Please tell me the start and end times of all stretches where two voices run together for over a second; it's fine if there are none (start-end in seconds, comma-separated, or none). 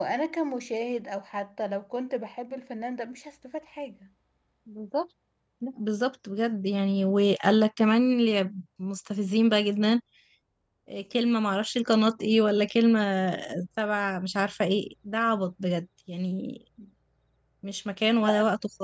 none